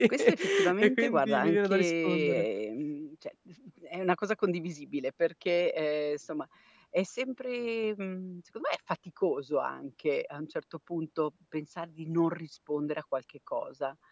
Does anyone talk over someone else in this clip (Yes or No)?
Yes